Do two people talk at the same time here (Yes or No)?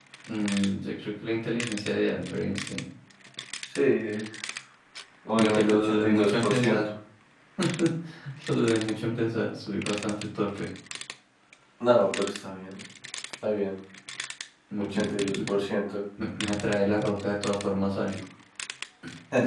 Yes